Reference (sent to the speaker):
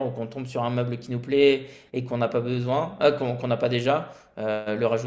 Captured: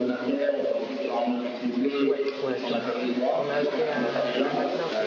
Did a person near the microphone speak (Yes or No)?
Yes